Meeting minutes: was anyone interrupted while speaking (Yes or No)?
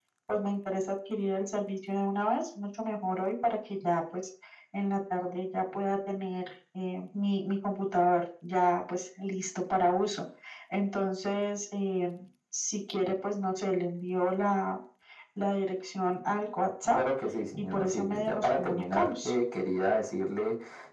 Yes